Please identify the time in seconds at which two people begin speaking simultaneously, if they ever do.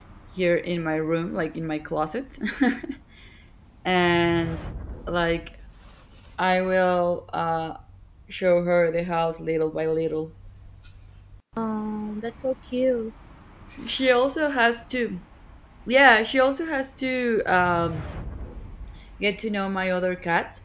none

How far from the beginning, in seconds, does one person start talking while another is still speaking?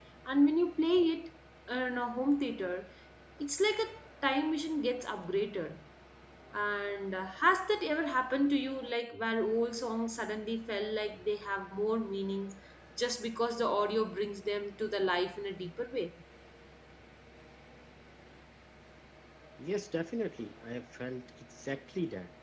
none

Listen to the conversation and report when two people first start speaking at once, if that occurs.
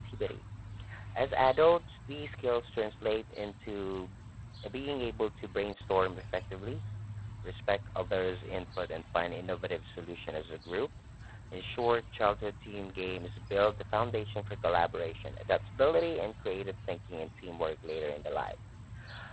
none

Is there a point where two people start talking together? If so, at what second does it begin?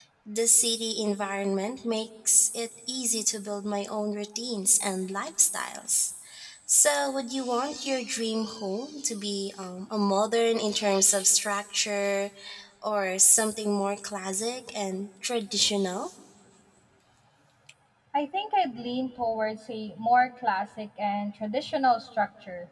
none

